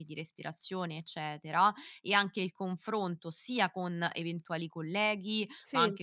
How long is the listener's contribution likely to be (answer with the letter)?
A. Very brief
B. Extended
A